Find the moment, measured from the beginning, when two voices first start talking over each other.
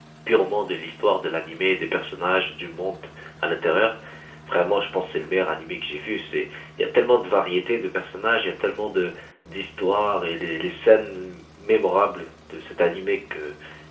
none

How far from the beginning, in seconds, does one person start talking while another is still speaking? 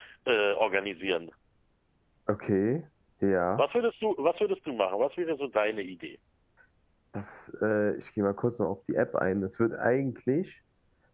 none

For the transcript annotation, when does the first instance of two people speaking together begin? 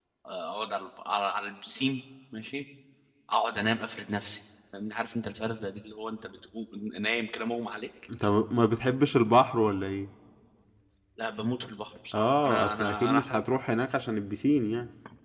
12.1 s

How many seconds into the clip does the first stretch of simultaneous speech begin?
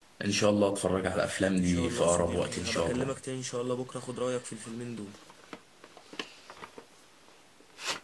1.6 s

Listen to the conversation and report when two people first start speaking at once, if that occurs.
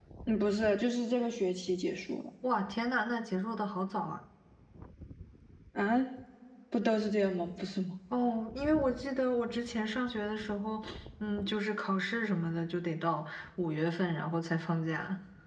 none

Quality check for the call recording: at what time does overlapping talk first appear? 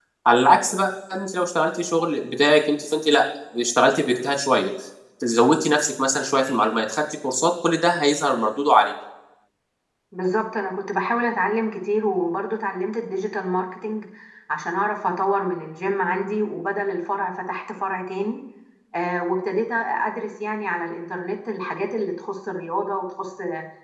none

